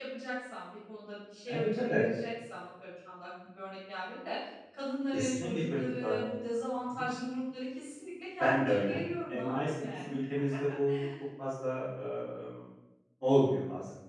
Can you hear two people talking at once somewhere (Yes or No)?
Yes